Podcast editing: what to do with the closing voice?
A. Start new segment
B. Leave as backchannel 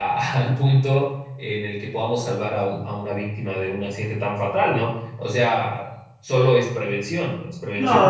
A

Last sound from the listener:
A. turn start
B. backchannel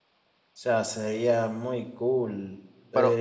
A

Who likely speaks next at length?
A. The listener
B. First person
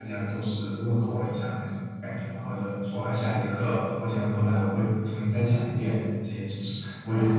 A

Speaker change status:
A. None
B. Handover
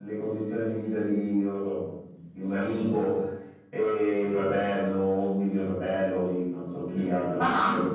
A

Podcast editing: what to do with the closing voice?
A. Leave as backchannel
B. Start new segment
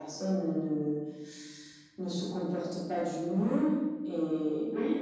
A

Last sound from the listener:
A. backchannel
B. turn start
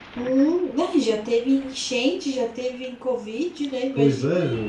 B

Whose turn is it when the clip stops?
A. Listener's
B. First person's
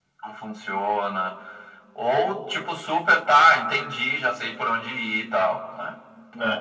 A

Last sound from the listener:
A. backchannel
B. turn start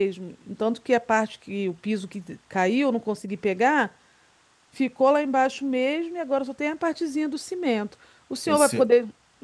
A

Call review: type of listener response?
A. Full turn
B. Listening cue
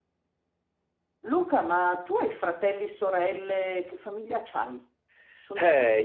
A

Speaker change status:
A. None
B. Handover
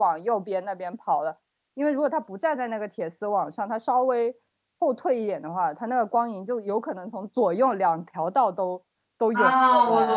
B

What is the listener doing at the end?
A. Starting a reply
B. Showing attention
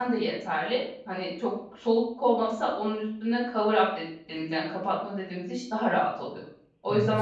A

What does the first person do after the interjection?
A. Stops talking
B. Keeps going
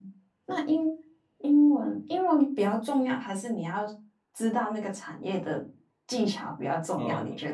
A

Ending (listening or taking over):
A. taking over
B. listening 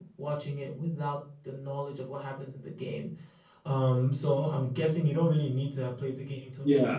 A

